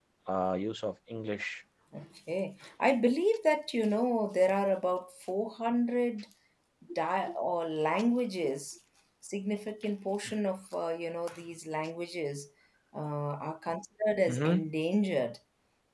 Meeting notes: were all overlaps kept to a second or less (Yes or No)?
Yes